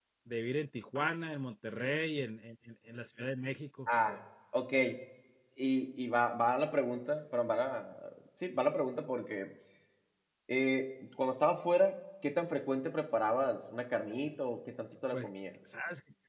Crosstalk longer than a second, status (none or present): none